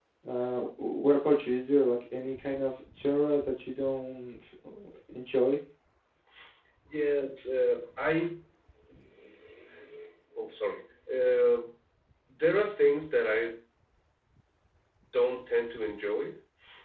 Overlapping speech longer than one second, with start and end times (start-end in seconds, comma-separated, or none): none